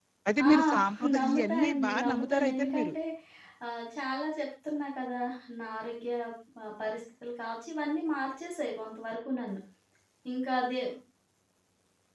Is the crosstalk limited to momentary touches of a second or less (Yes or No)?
No